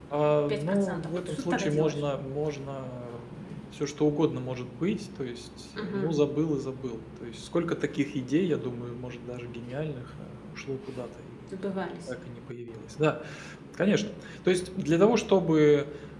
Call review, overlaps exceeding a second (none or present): present